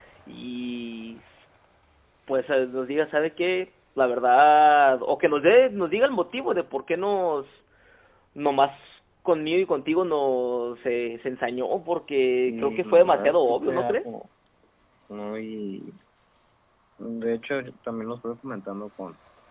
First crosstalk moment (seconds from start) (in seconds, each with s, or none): 12.5 s